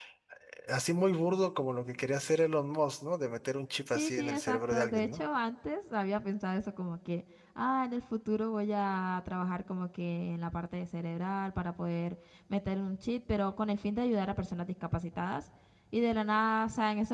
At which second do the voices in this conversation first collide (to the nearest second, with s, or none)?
4 s